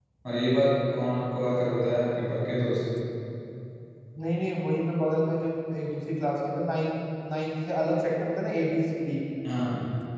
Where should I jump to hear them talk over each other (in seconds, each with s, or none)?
none